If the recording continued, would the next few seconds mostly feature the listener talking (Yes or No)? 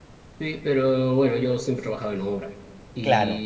No